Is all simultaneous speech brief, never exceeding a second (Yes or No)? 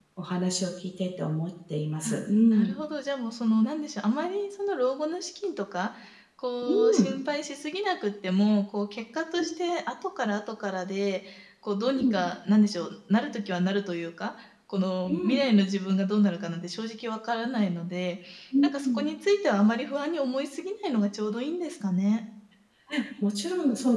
Yes